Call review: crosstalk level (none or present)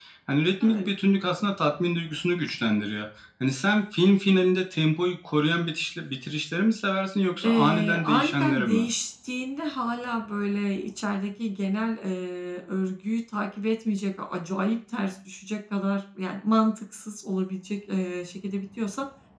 present